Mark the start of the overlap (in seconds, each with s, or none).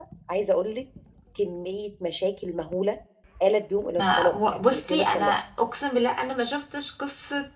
4.0 s